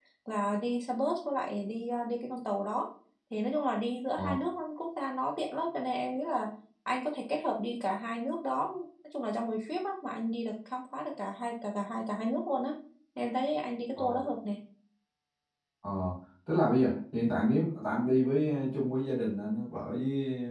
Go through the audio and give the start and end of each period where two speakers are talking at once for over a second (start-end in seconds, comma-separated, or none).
none